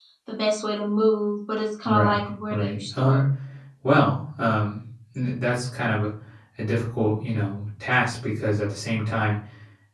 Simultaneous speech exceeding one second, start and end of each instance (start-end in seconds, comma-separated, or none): 1.9-3.2